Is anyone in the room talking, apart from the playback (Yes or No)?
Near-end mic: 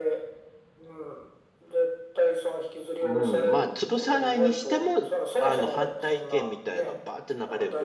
Yes